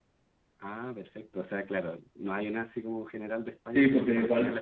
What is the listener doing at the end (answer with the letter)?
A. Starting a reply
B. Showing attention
A